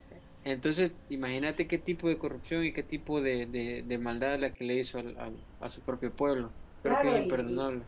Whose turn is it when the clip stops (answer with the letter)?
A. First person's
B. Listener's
B